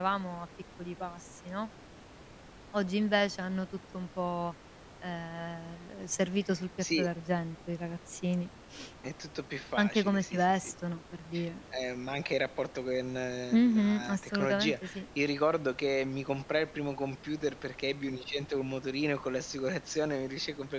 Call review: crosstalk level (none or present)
present